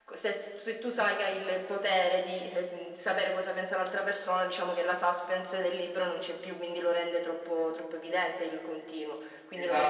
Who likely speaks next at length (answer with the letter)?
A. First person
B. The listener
B